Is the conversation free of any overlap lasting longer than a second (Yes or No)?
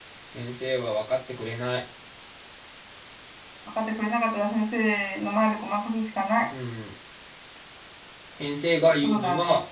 Yes